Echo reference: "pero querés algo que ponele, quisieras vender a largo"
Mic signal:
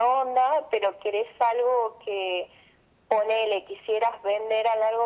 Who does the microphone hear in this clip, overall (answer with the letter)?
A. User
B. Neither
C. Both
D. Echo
D